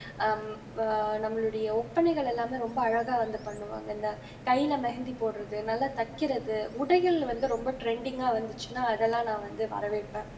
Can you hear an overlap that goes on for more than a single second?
No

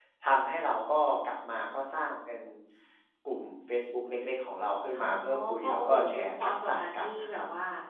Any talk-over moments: Yes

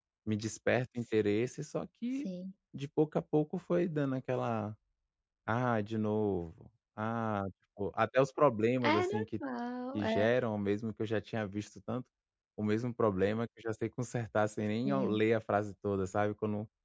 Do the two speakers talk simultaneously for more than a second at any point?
No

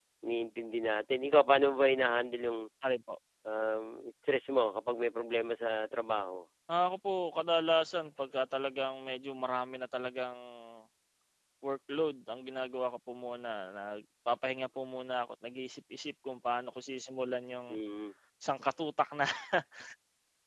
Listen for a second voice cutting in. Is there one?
No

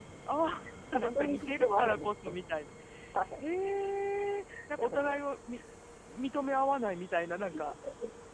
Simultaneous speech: Yes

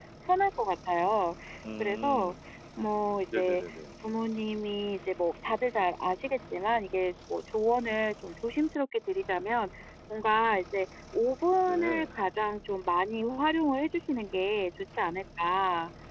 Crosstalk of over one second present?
No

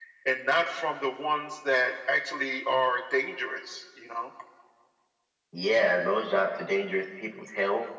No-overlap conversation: Yes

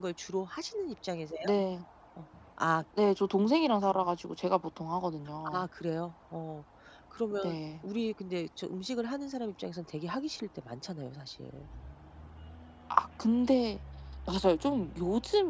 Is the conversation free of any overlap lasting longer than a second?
Yes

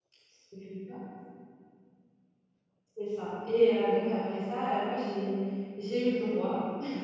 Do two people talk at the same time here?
No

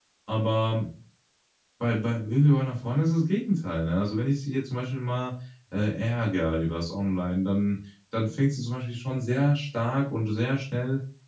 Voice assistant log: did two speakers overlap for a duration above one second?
No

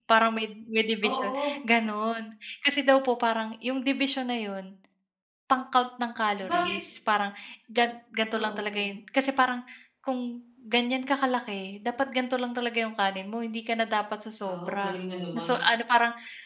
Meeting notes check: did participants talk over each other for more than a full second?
No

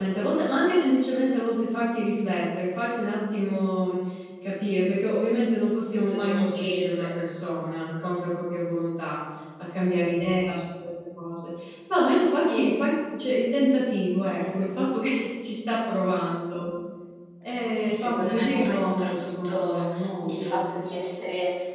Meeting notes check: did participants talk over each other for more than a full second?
Yes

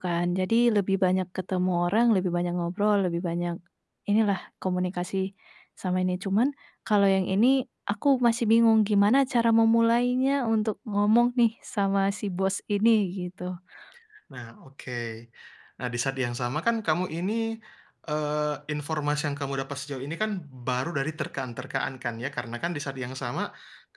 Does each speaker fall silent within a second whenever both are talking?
Yes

